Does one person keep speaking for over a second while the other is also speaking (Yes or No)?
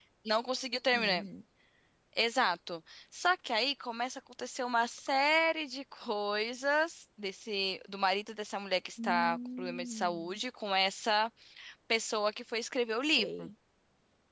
Yes